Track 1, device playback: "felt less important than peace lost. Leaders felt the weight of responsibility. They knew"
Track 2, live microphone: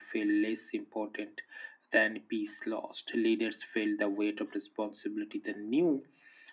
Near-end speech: none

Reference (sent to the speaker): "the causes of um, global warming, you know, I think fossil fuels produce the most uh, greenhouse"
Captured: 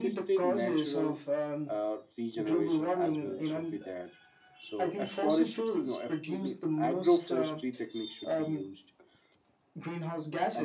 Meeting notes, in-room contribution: present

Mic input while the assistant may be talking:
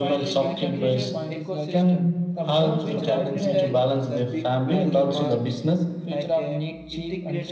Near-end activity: present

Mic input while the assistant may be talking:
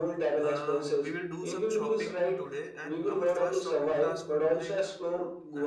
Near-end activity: present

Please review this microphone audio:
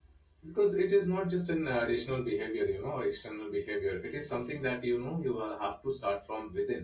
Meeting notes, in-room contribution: present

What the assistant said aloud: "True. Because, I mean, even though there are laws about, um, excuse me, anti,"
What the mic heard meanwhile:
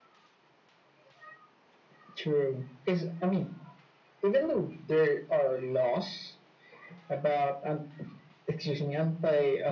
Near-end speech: none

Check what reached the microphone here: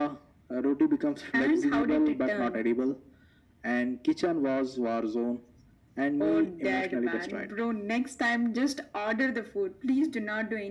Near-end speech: none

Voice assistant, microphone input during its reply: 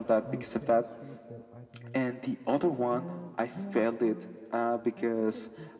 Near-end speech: present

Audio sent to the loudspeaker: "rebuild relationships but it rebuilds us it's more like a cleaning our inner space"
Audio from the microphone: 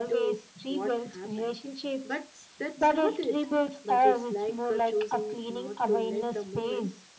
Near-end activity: present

